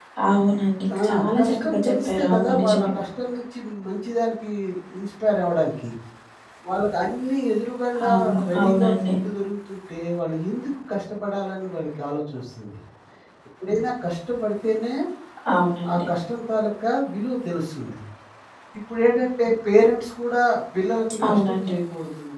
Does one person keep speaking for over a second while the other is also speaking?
Yes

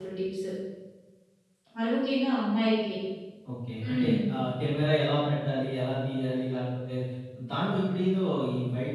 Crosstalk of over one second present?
No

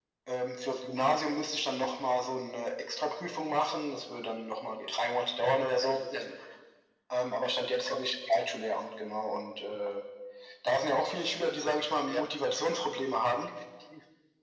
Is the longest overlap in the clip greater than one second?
No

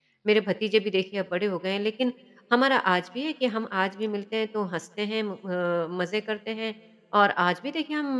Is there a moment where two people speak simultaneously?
No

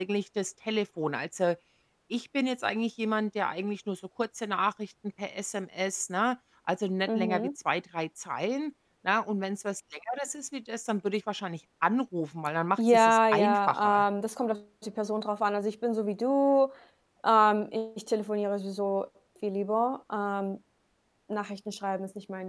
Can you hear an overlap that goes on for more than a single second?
Yes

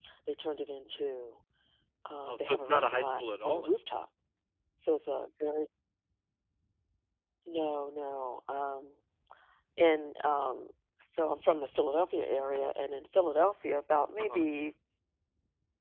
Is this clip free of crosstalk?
No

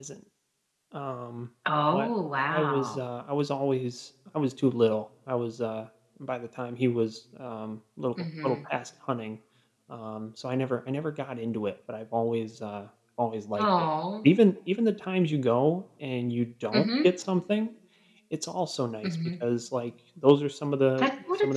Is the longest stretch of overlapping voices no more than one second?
Yes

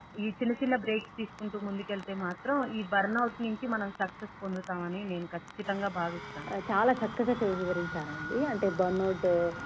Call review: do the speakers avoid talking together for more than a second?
Yes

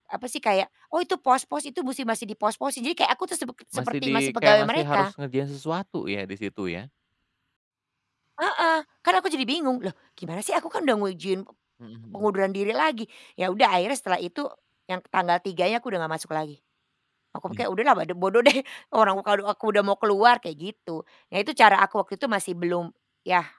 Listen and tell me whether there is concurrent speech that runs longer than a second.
Yes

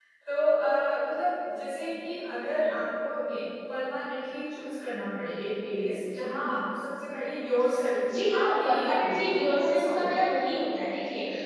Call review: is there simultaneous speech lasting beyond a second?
Yes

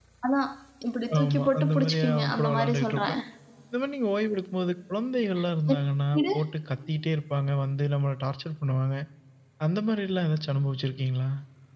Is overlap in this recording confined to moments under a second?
No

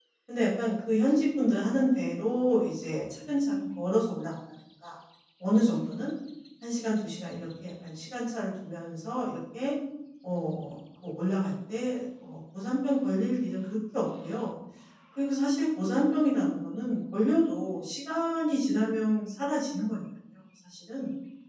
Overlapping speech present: No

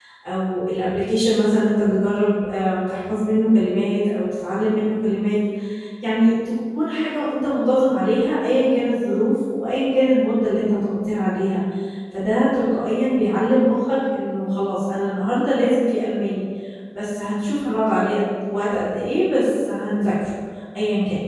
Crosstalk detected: No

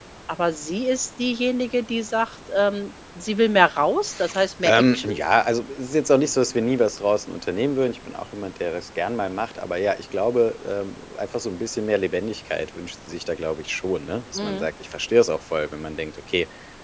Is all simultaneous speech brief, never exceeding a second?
Yes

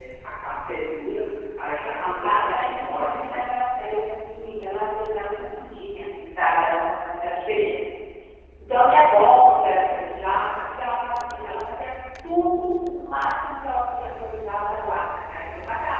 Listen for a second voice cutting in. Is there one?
Yes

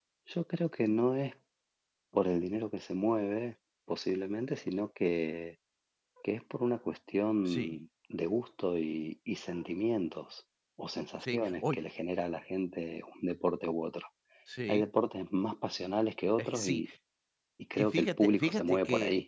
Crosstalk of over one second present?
Yes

